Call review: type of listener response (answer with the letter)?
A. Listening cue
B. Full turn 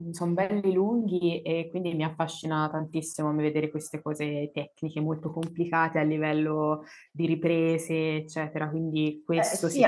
B